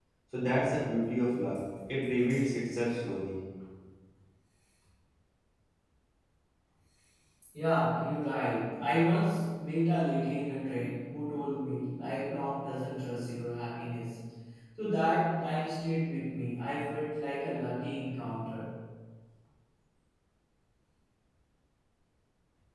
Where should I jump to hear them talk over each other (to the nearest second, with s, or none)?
none